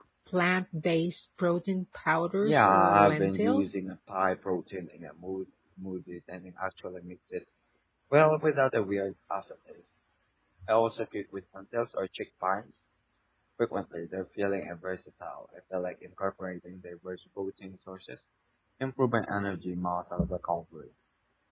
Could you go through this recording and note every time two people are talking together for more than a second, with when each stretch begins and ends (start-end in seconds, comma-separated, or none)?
2.4-3.7